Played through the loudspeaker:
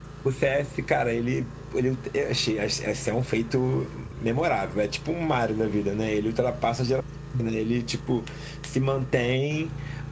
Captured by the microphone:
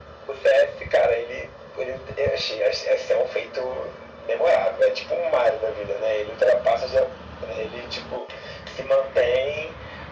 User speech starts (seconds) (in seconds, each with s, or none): none